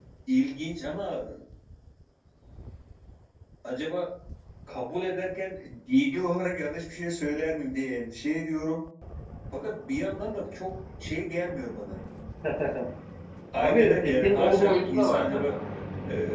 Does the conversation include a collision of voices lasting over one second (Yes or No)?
Yes